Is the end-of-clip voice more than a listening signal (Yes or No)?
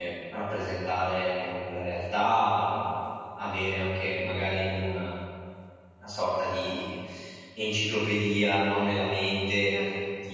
No